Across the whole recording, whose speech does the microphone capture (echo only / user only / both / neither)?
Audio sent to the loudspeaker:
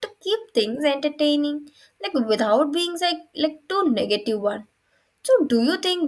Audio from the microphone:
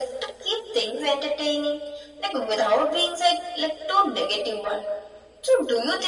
echo only